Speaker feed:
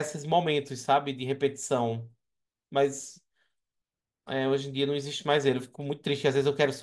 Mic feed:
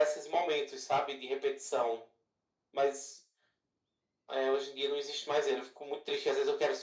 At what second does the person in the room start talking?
none

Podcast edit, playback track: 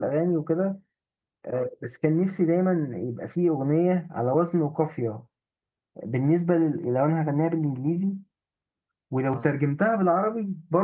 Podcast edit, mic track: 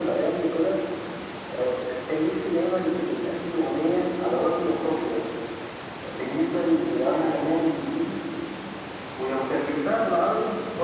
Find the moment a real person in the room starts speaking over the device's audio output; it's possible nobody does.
none

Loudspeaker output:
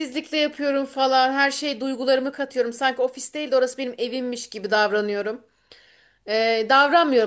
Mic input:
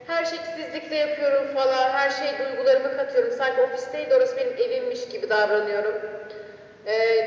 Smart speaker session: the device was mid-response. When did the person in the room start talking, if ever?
none

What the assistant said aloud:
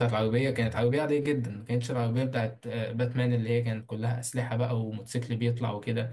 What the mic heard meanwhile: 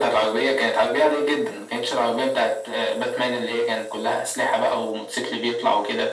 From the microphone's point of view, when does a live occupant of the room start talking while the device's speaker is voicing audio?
none

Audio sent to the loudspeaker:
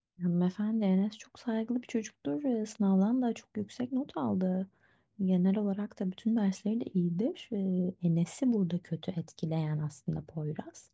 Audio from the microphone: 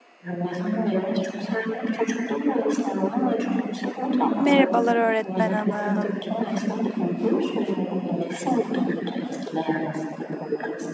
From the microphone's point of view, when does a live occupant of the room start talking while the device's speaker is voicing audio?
4.4 s

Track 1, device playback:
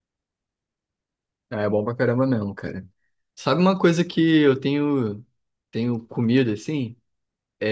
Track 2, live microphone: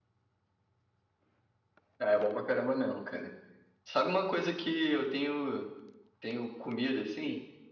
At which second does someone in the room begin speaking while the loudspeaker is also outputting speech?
none

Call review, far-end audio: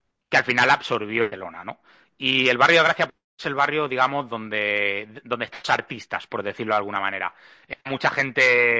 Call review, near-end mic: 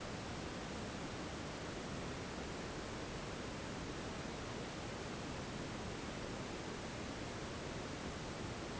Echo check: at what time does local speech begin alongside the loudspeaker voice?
none

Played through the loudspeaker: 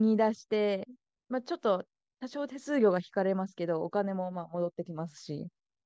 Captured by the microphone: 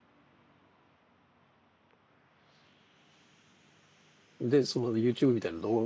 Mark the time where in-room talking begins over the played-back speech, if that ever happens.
4.4 s

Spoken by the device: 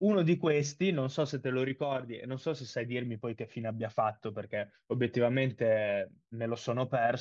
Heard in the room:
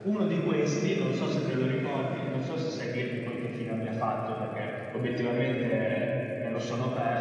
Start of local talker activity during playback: none

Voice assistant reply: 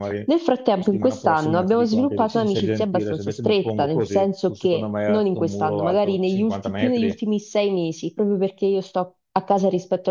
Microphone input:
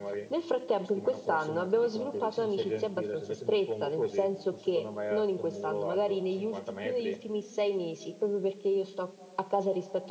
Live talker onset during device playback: none

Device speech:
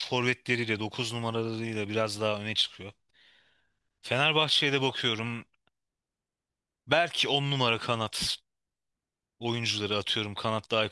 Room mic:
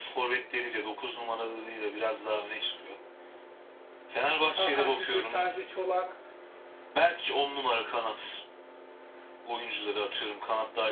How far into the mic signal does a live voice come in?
4.5 s

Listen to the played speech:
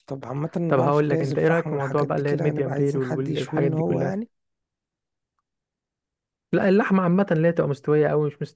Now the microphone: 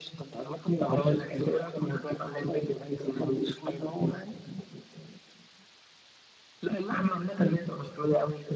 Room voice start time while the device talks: none

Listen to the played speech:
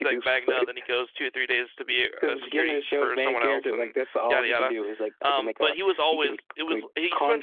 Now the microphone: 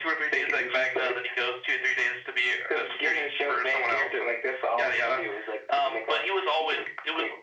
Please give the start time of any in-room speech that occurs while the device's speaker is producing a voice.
none

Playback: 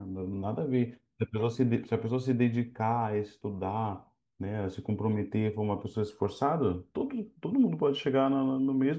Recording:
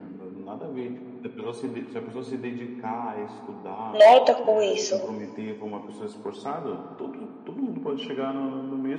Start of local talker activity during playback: 3.9 s

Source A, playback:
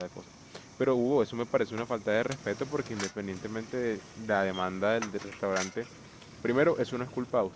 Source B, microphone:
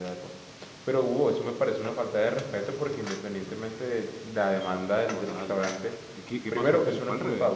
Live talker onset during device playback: 5.1 s

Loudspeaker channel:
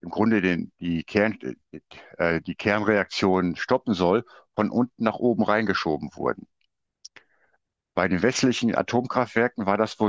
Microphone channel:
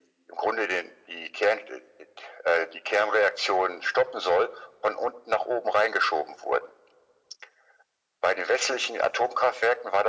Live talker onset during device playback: none

